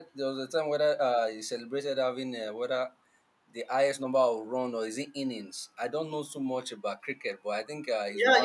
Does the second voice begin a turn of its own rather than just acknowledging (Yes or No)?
Yes